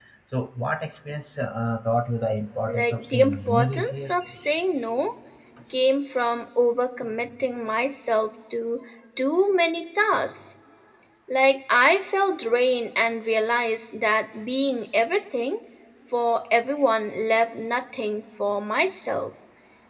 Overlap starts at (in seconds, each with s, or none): 2.7 s